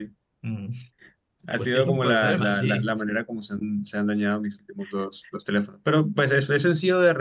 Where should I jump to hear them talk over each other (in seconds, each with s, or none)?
1.6 s